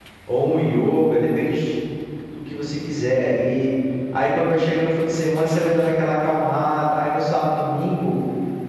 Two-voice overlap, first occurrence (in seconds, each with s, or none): none